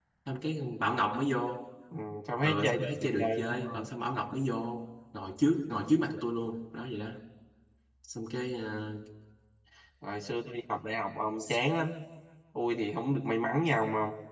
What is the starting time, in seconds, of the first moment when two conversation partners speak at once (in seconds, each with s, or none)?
2.4 s